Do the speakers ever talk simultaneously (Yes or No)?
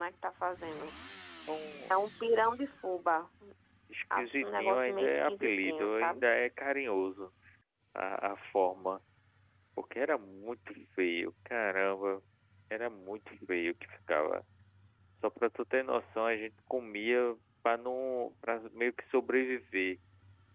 Yes